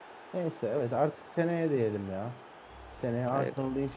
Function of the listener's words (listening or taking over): listening